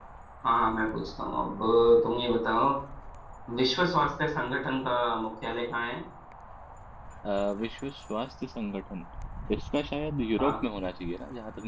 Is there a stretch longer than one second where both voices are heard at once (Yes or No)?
No